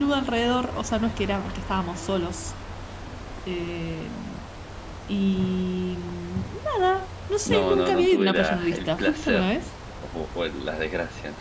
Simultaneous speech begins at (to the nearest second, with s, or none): 7 s